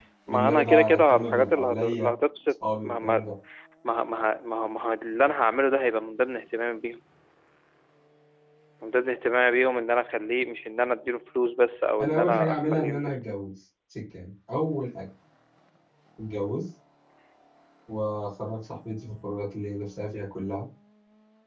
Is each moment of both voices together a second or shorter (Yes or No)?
No